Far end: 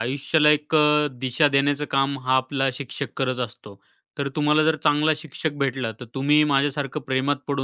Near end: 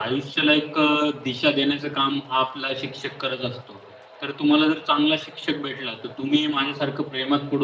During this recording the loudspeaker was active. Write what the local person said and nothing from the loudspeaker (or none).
none